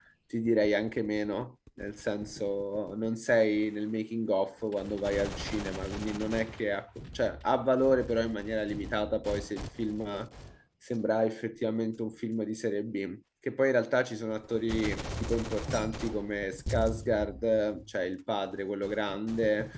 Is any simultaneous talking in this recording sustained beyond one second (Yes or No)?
No